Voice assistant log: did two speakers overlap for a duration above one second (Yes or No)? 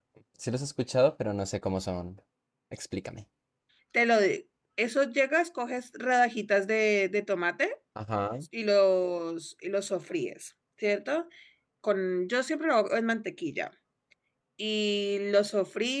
No